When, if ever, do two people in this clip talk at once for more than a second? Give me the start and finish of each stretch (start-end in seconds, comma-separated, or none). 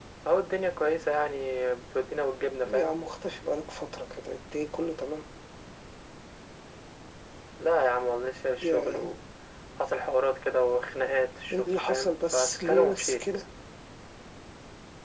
11.5-13.2